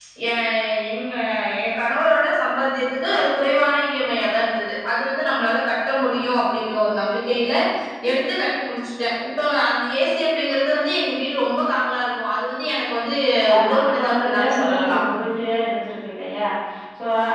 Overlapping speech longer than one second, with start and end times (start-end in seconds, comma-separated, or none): 13.6-15.0